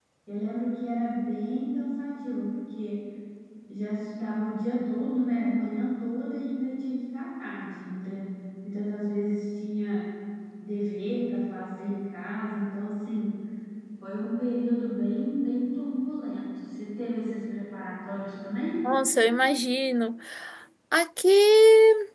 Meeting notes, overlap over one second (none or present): none